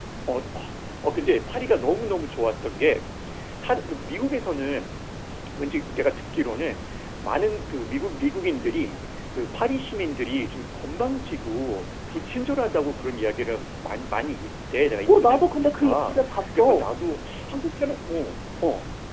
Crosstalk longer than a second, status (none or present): present